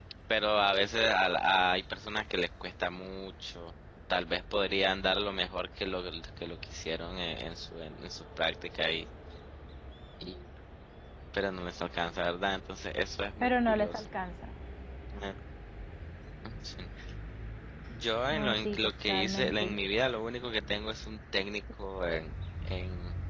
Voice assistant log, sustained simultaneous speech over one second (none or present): present